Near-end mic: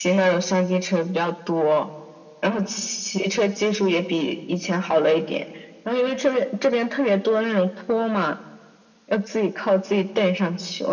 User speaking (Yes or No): No